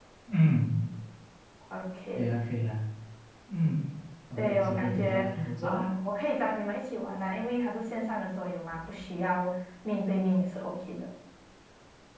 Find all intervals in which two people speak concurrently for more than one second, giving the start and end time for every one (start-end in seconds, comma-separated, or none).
4.4-5.9